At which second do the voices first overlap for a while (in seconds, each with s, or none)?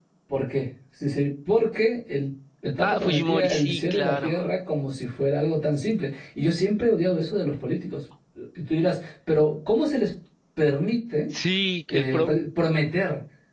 2.8 s